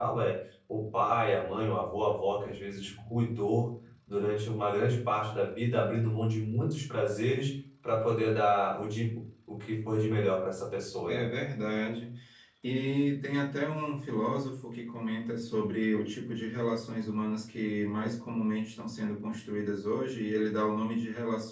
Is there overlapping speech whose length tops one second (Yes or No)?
No